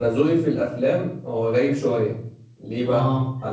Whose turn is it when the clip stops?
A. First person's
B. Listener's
A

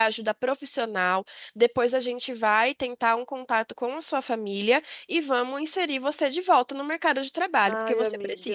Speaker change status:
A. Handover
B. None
A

